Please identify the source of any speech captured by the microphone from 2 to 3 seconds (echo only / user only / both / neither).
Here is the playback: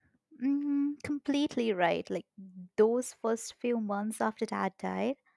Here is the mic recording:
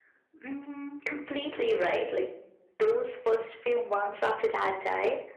echo only